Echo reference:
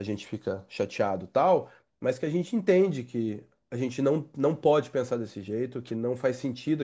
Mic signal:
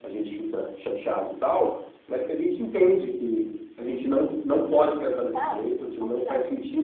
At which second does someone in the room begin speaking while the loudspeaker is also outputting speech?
5 s

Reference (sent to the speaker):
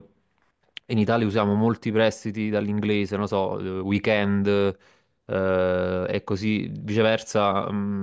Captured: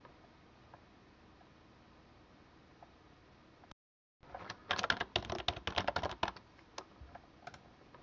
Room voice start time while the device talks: none

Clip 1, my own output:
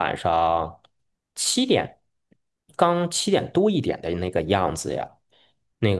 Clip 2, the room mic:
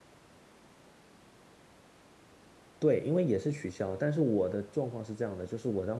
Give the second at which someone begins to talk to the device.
3 s

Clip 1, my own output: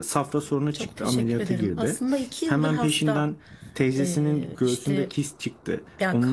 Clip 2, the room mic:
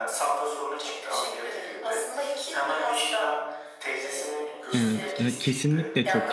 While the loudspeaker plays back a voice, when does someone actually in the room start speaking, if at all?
5 s

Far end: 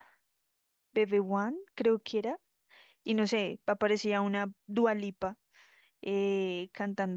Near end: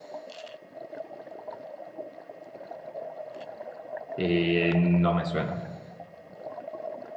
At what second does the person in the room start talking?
4 s

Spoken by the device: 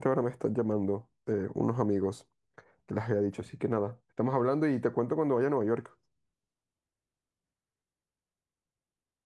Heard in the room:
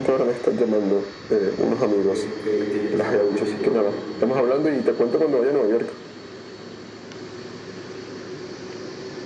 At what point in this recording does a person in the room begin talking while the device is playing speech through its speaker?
2 s

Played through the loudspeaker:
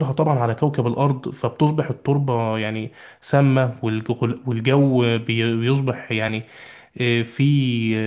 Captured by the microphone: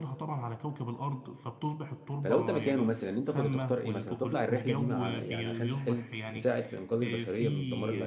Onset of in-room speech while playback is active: 2 s

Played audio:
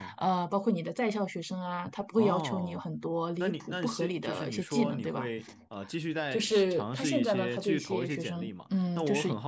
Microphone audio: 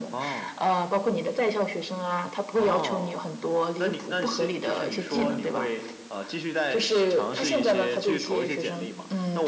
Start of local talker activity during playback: none

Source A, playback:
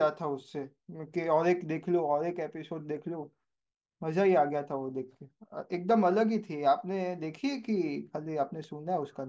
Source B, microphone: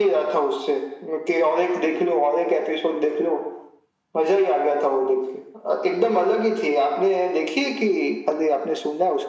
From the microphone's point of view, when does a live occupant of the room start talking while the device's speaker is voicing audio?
none

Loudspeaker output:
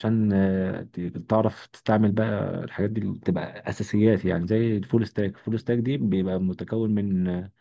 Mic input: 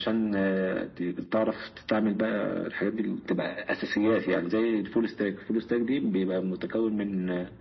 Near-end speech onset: none

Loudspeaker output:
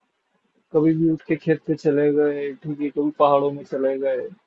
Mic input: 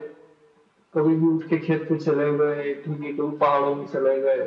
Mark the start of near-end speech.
none

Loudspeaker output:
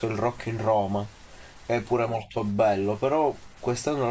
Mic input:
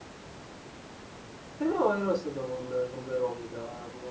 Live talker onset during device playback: 2 s

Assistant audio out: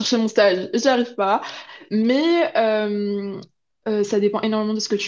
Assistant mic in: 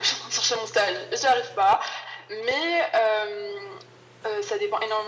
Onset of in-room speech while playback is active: none

